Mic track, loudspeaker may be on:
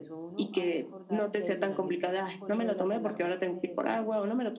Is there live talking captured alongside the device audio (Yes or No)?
Yes